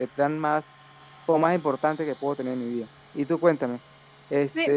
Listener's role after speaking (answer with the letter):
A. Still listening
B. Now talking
B